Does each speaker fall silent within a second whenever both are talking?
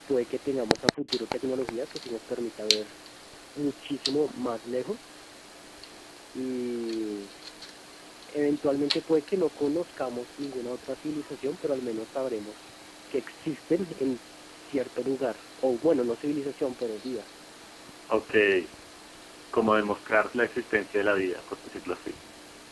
Yes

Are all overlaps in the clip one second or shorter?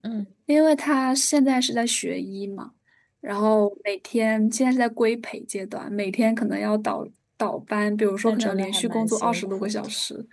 No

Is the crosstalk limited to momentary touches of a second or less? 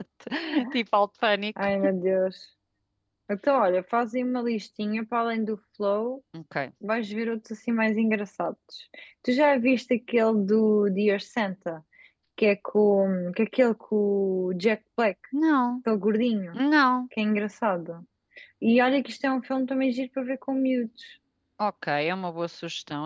Yes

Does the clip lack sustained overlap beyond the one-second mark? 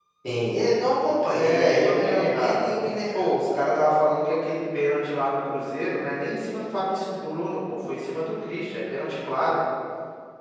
No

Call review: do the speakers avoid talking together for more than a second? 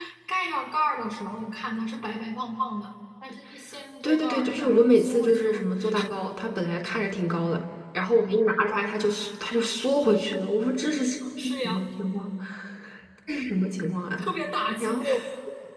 No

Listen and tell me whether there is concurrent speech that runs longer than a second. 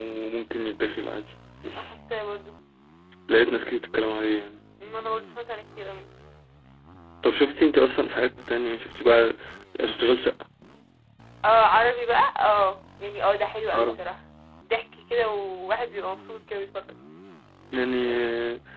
No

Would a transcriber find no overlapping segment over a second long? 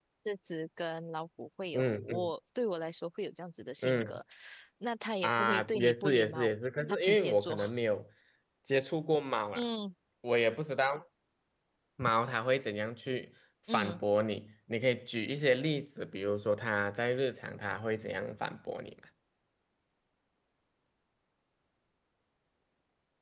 No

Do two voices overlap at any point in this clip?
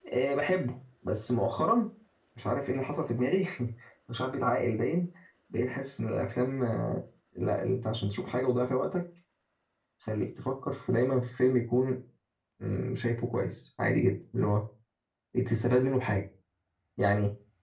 No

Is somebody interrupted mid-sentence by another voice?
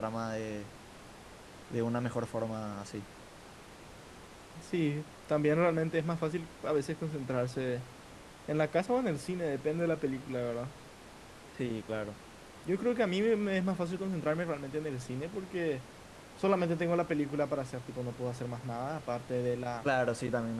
No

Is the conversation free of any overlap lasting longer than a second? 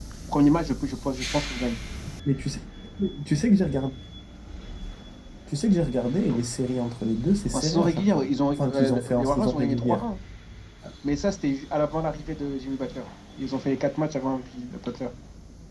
No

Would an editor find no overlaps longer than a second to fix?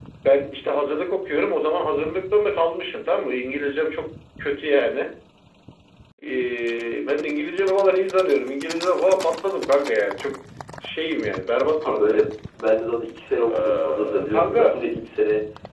No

